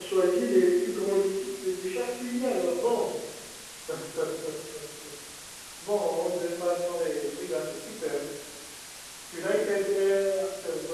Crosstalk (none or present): none